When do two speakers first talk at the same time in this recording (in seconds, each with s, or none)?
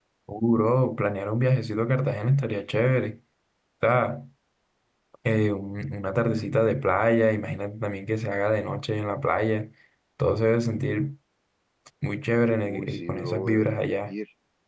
12.6 s